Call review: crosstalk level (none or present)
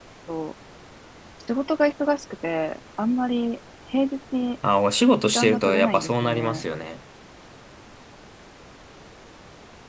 present